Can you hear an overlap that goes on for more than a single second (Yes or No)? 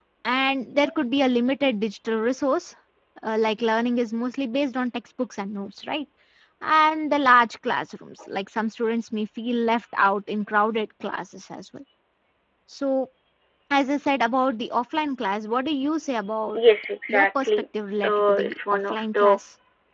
Yes